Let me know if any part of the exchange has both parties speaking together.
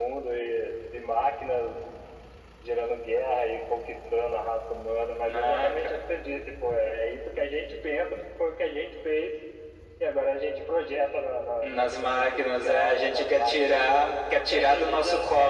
Yes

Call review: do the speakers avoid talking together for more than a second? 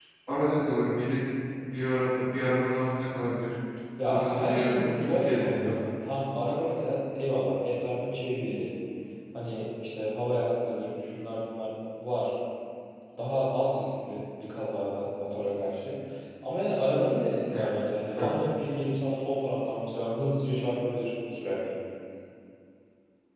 No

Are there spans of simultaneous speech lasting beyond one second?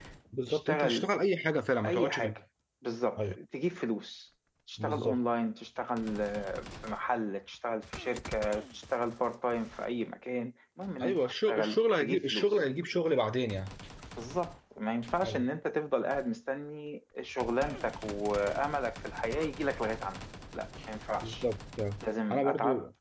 Yes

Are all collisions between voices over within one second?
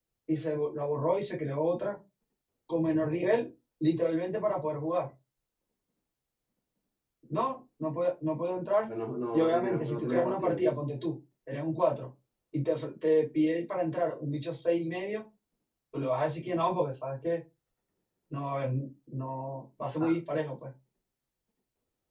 No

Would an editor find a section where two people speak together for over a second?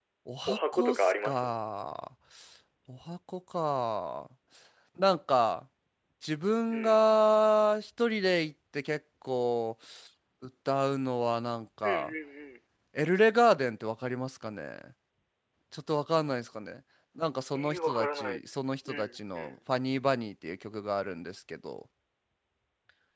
Yes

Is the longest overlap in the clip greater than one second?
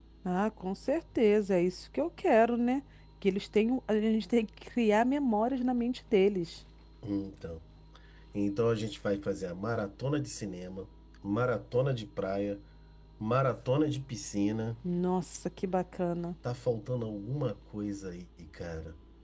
No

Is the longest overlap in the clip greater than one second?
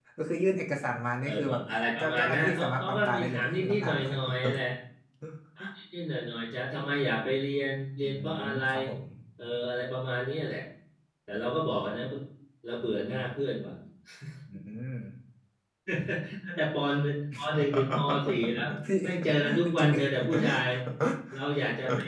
Yes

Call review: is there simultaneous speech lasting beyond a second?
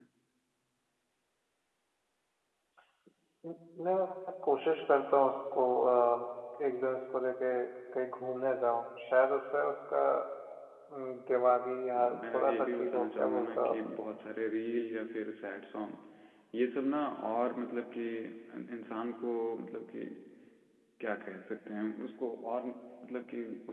Yes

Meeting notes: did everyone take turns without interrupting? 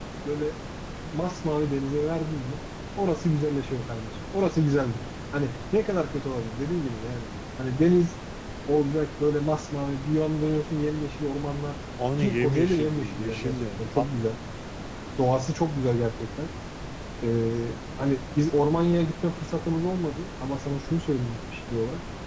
No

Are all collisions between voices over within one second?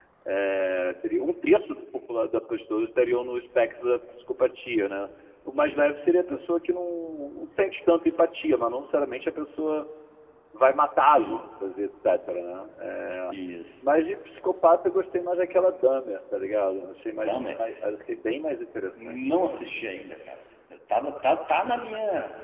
Yes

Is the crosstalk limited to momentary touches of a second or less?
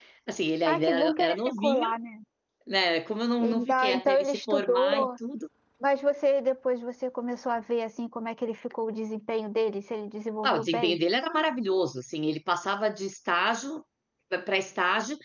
No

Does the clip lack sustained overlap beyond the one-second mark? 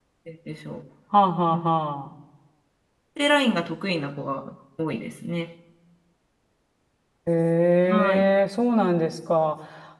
Yes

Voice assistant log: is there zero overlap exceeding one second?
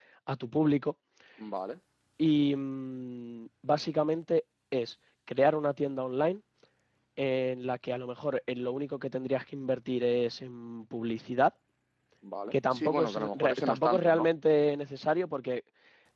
No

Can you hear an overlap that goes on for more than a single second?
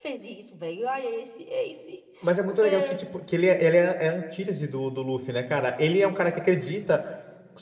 No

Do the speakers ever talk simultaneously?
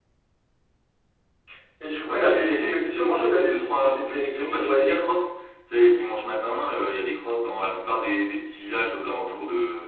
Yes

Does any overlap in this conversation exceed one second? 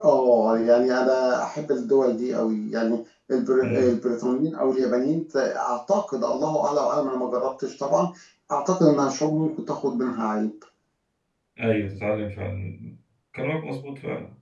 No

